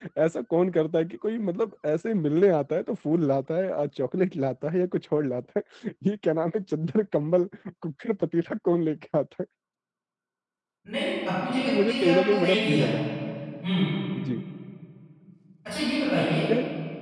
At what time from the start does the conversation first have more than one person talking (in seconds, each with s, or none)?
11.7 s